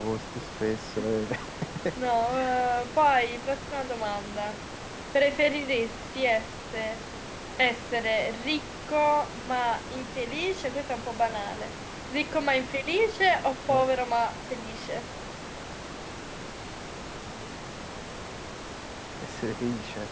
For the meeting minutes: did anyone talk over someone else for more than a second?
No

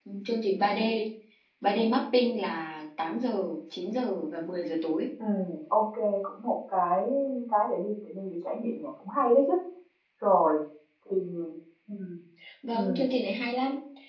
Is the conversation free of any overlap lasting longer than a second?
Yes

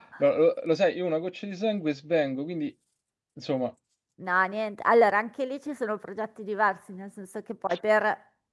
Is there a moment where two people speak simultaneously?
No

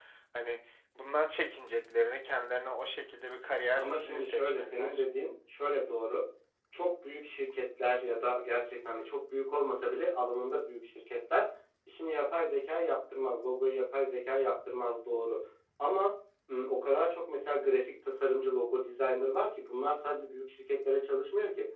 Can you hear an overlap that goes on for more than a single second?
Yes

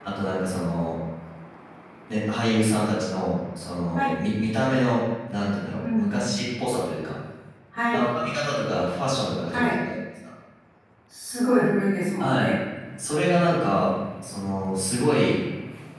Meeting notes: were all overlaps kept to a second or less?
Yes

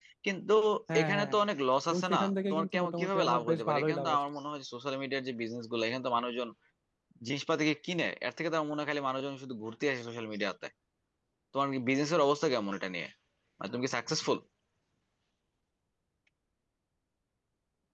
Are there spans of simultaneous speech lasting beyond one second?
Yes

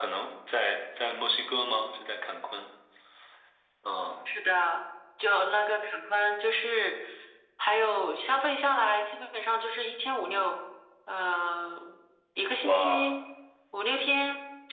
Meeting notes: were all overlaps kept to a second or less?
Yes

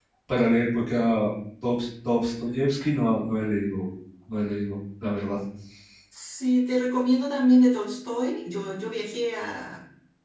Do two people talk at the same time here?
No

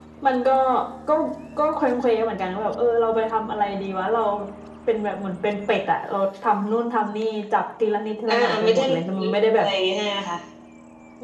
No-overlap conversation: No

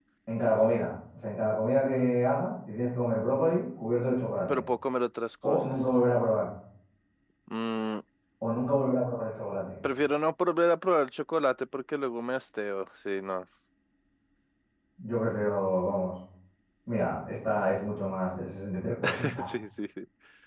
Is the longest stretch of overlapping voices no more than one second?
Yes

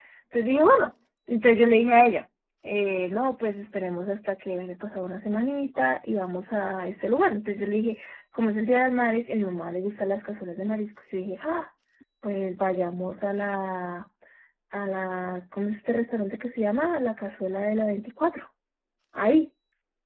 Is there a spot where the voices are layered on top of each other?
No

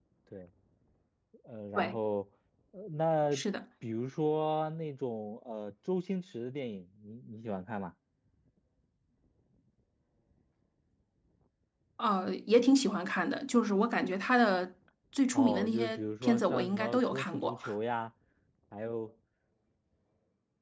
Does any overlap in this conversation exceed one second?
Yes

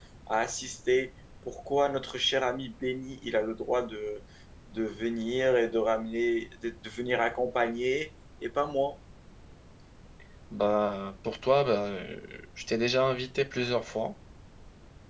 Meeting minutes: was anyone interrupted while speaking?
No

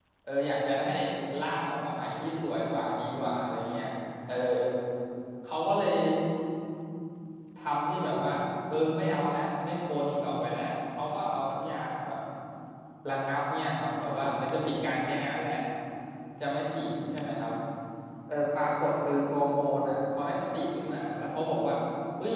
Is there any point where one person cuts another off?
No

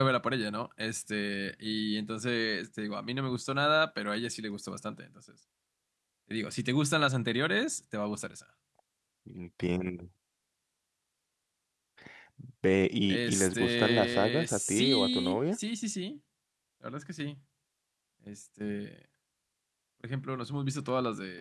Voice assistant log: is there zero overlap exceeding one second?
No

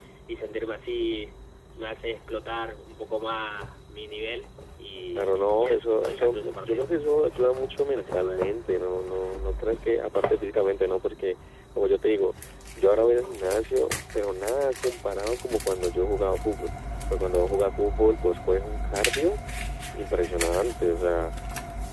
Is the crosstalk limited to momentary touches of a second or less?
No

